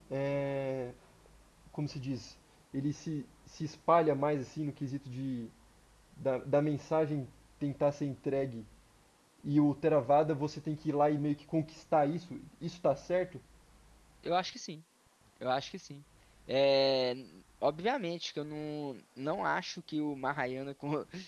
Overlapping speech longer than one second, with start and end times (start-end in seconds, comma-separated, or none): none